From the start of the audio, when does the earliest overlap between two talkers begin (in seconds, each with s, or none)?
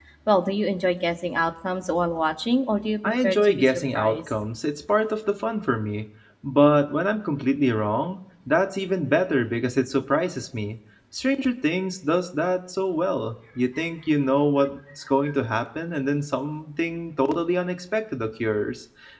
3.0 s